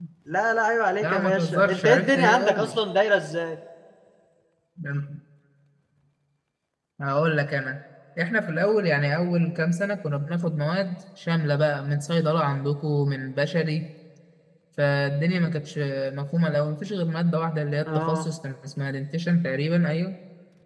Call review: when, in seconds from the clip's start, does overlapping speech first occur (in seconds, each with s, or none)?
1.0 s